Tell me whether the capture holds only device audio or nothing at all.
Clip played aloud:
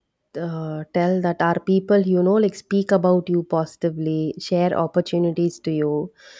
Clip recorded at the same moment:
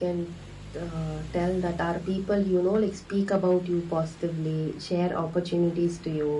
Yes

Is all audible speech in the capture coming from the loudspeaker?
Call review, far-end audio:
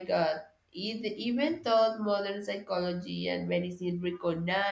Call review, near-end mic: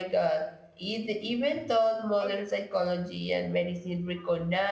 No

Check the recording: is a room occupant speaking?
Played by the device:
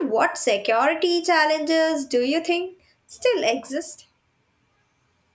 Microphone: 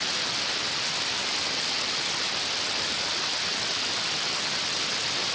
No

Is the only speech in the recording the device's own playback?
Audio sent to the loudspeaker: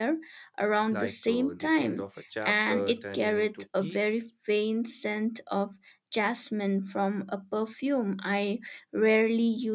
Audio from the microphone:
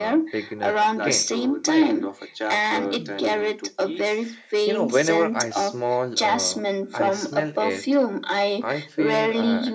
No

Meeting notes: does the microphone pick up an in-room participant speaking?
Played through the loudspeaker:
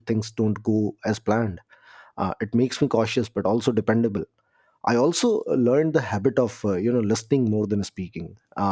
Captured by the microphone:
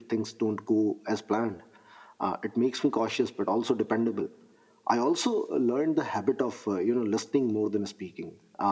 No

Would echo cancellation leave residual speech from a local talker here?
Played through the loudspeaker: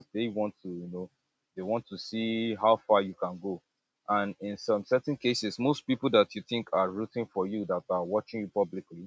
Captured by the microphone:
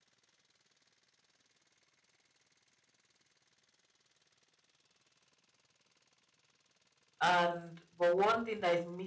Yes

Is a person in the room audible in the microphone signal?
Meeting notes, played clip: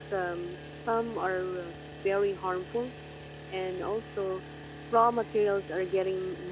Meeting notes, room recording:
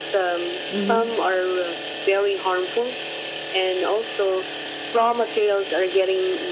Yes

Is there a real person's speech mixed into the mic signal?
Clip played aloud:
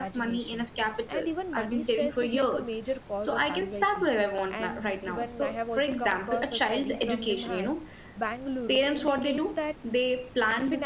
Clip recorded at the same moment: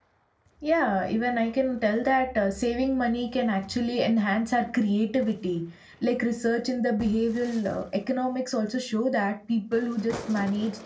Yes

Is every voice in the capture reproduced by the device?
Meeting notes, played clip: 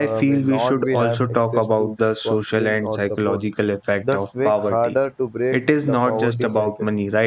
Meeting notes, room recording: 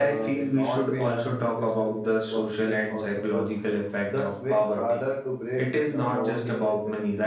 Yes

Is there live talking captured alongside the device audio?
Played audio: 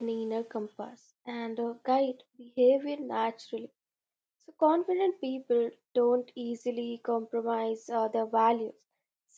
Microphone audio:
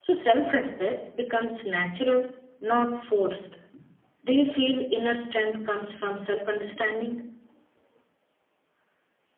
Yes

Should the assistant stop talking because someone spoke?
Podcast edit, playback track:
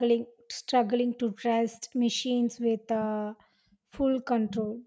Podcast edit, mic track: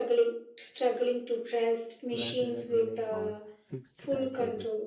Yes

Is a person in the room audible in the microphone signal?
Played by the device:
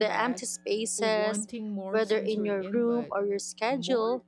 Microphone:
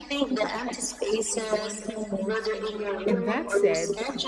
Yes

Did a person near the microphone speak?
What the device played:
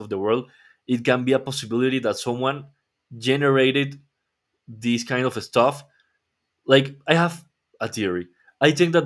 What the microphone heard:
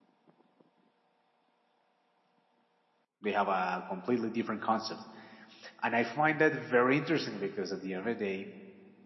Yes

